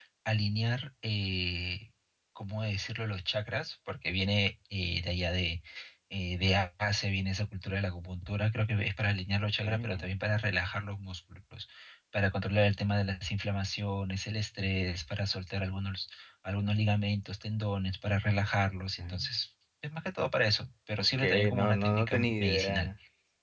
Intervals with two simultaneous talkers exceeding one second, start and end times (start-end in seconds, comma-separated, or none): 21.0-22.9